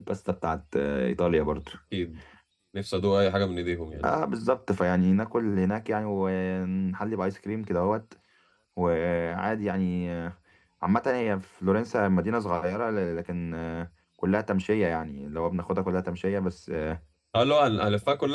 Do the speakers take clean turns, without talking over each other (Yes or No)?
Yes